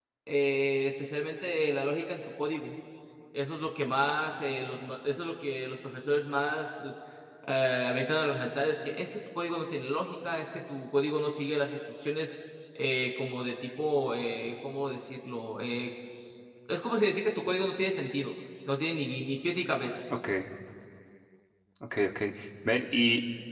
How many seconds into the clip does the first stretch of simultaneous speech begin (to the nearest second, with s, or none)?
none